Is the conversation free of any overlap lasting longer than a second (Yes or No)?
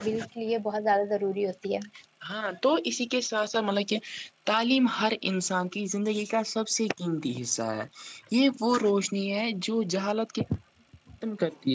Yes